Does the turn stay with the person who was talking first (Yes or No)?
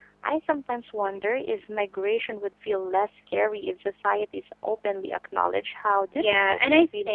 No